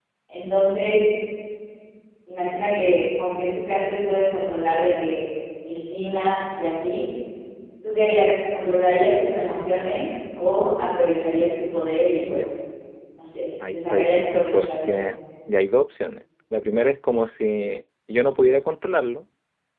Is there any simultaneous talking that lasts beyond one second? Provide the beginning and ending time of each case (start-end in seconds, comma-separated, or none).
13.7-15.1